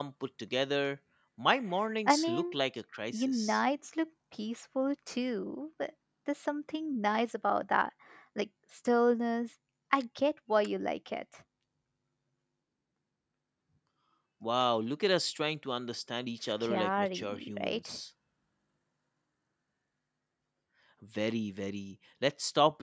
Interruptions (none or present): present